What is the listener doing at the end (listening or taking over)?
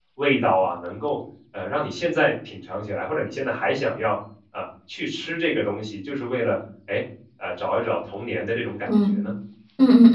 taking over